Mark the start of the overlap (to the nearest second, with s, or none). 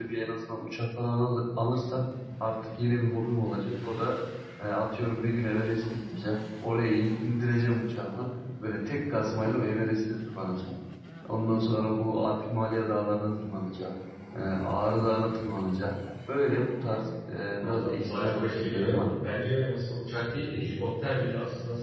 18 s